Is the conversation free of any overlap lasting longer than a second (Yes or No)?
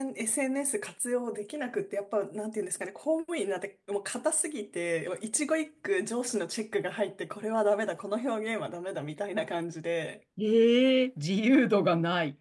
Yes